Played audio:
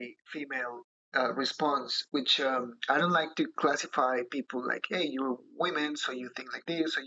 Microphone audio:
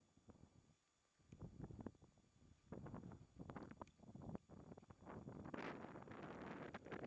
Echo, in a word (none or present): none